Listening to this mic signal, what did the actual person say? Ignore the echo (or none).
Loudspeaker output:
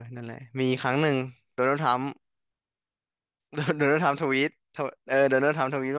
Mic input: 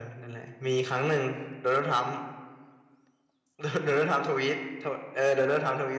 none